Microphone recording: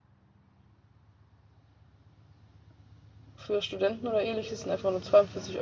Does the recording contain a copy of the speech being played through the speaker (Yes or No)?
No